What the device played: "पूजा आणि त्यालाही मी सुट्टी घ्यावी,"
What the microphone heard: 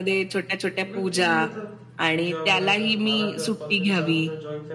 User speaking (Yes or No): Yes